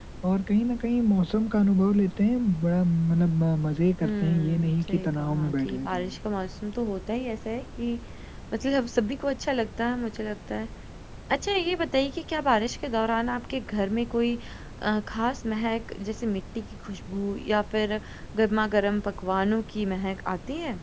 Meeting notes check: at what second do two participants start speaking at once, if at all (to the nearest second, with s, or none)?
4 s